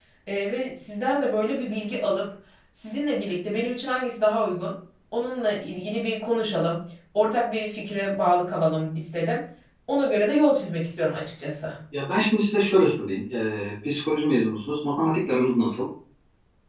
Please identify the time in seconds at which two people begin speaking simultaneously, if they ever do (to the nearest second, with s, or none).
none